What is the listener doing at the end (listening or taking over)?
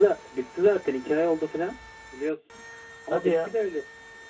listening